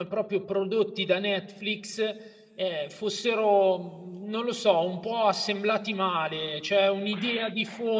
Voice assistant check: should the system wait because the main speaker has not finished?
Yes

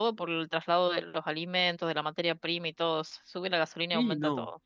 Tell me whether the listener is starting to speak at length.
Yes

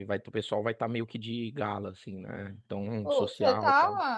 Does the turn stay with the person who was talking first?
No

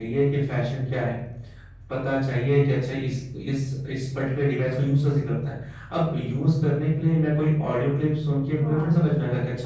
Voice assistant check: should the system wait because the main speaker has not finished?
Yes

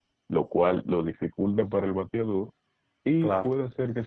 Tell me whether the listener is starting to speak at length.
No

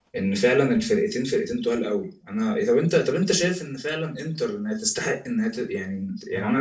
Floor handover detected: No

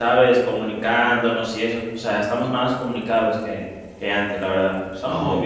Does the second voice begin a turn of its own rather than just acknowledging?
Yes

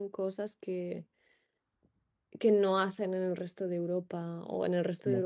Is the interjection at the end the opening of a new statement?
No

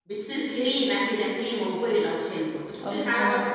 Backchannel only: No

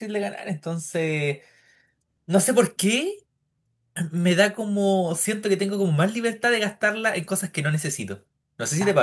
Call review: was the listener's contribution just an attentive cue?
No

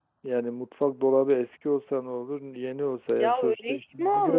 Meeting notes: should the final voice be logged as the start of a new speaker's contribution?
Yes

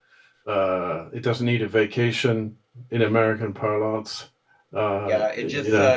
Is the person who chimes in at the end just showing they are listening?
No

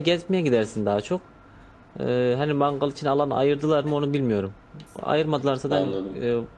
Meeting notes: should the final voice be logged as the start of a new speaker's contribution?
No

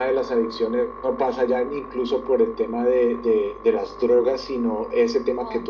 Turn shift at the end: No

